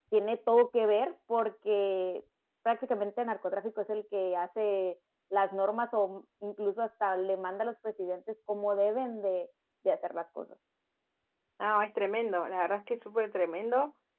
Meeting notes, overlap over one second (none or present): none